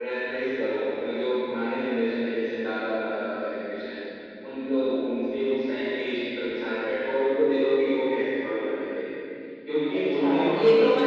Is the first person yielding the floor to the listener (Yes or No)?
Yes